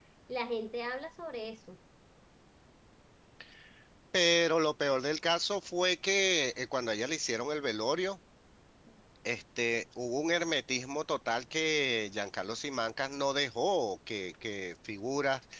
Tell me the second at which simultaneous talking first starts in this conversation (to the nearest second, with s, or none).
none